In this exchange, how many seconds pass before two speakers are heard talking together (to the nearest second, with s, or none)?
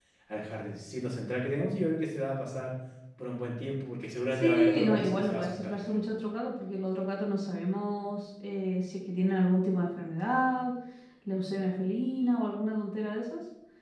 4 s